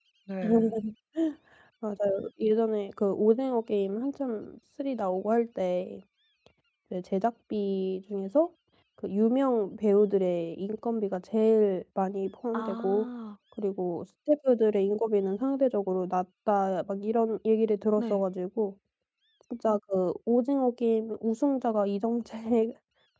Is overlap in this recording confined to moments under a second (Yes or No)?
Yes